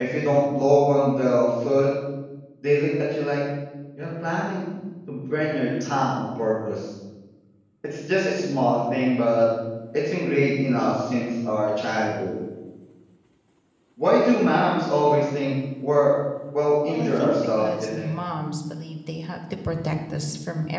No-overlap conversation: No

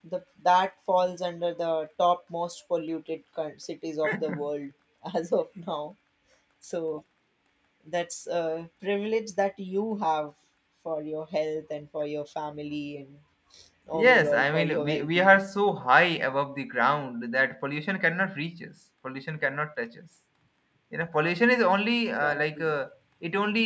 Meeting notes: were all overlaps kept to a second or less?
No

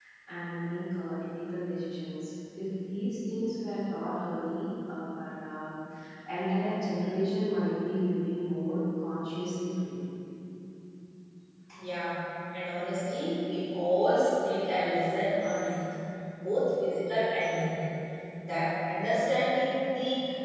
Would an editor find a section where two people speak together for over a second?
No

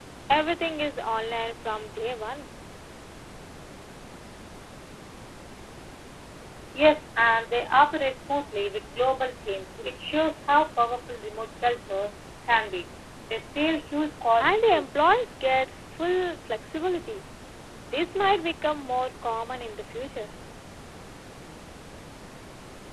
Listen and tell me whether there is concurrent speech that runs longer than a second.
No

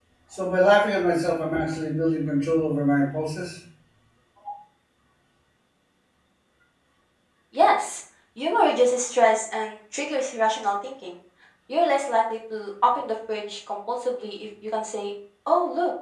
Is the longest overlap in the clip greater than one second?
No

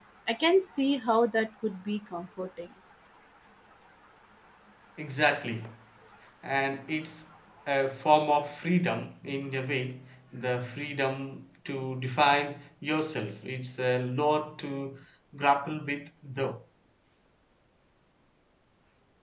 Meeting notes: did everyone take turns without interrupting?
Yes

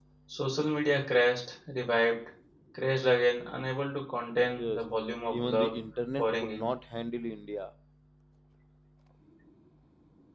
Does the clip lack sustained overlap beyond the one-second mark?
Yes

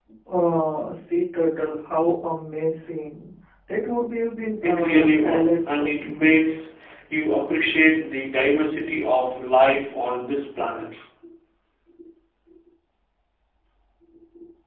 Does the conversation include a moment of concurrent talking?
Yes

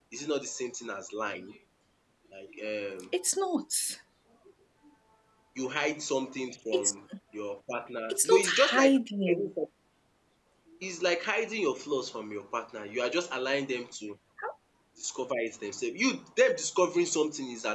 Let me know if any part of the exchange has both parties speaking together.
Yes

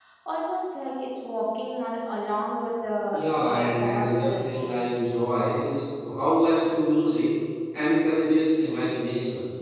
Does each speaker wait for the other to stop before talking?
No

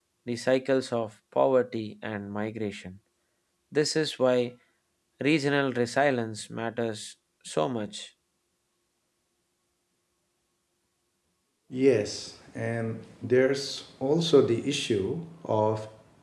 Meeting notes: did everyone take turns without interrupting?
Yes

